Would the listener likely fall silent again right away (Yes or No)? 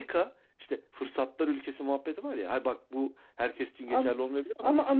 No